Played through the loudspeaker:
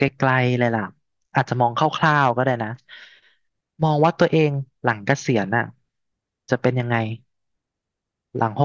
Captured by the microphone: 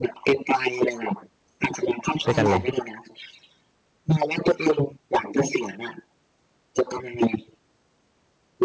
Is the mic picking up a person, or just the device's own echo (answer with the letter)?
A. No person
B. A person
B